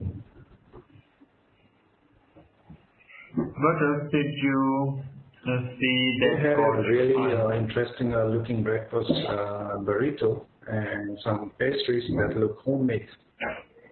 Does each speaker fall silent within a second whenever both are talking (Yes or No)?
No